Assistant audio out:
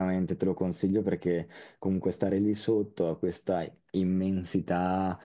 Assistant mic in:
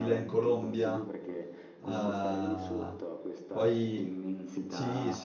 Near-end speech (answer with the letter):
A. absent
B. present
B